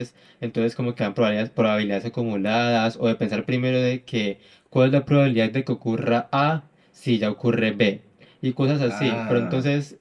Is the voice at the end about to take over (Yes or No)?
No